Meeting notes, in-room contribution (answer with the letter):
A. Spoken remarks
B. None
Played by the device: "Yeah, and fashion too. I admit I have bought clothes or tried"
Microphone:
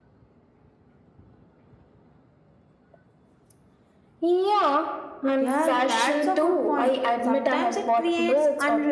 A